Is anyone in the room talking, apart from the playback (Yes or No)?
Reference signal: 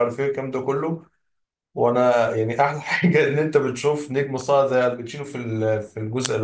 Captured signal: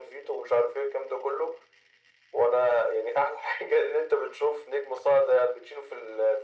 No